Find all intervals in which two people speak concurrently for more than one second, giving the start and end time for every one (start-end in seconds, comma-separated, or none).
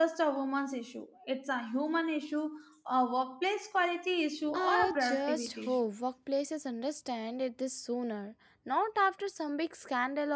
4.5-5.8